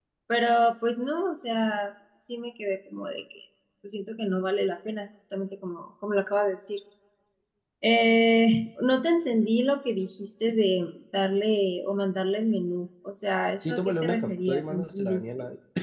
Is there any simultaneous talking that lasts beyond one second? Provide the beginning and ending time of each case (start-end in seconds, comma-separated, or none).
13.6-15.2